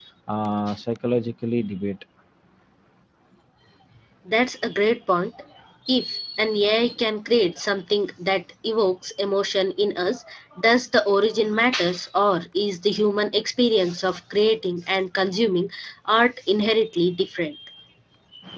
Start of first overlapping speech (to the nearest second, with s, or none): none